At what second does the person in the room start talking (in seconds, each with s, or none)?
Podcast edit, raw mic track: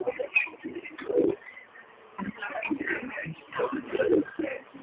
none